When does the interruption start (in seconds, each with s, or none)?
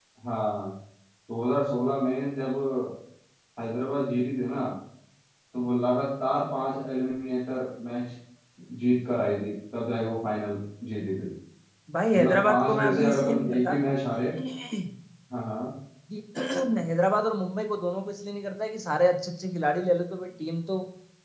12.1 s